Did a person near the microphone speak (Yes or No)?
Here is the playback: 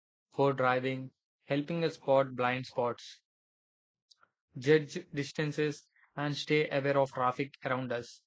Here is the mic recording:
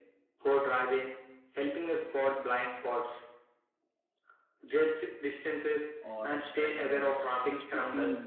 Yes